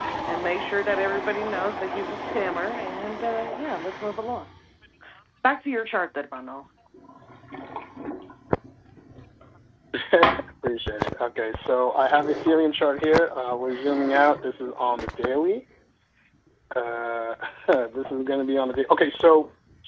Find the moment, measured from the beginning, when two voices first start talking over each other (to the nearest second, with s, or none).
none